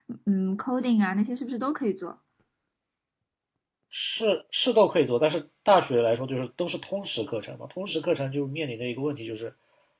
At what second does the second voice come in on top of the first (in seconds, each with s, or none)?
none